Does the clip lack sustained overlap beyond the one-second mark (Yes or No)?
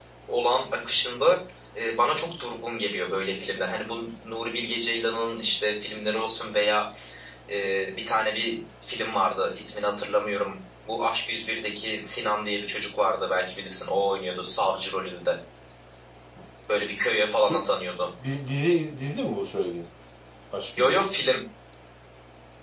Yes